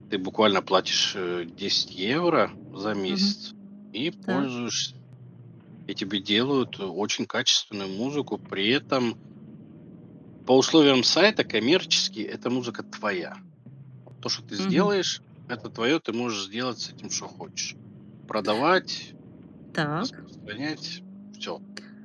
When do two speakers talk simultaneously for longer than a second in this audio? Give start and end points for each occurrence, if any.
none

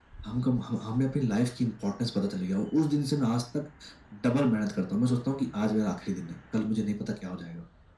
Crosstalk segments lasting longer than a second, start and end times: none

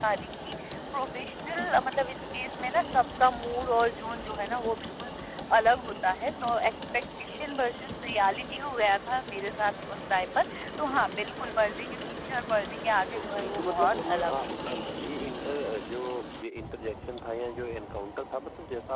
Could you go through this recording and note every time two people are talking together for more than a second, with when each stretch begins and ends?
13.2-14.8

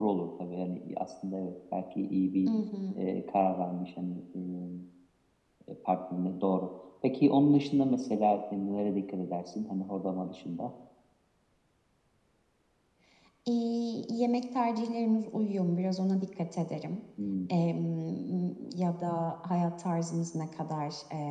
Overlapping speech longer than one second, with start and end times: none

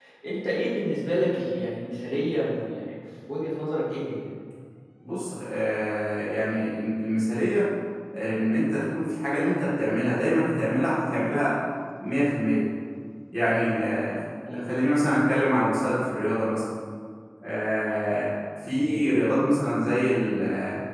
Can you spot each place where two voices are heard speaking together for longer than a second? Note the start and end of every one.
none

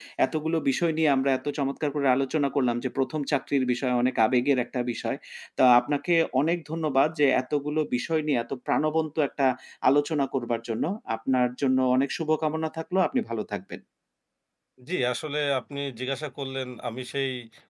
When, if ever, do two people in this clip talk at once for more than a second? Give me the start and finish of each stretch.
none

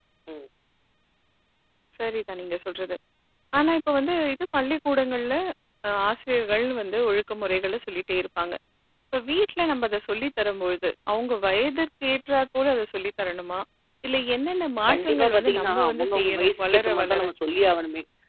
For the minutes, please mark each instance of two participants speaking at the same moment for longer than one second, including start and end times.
14.9-17.2

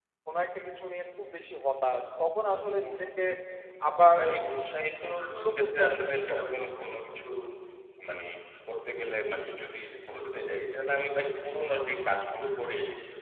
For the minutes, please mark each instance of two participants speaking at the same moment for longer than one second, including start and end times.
5.1-6.5

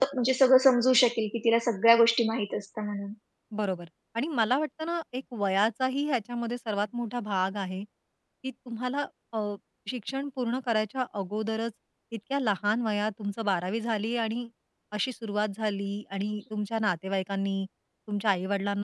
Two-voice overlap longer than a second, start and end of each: none

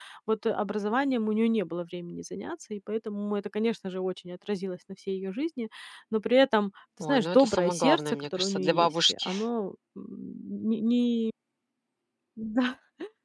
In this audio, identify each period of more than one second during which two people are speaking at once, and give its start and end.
7.0-9.3

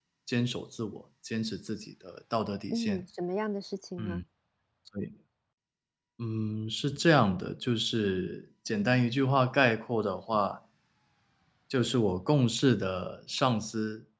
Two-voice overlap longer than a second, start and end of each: none

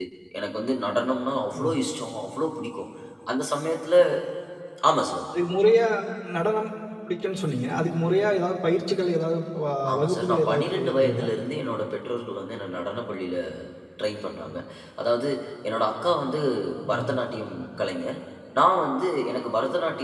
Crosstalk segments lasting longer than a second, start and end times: 9.9-11.3

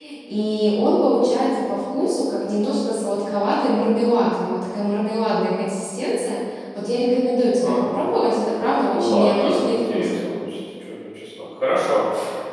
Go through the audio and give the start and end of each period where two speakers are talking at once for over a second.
8.9-10.2

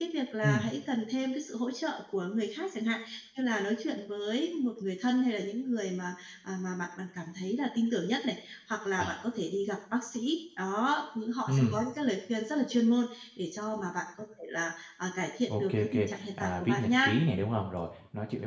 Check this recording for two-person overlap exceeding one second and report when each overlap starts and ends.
15.5-17.1

